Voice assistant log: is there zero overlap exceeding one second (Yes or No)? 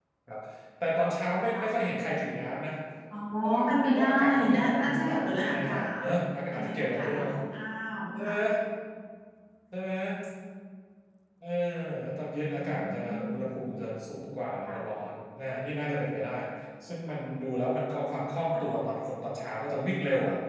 No